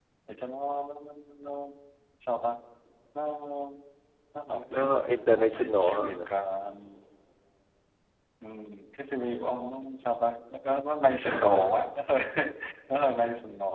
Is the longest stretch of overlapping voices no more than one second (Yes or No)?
No